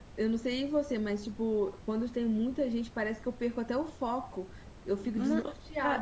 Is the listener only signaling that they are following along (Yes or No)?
No